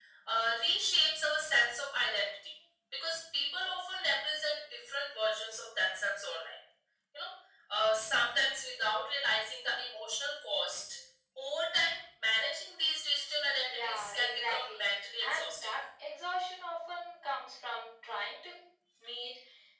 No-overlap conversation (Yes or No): No